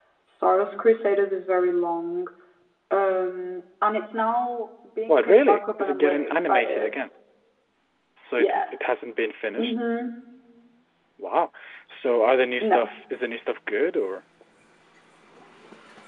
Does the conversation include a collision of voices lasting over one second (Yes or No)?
Yes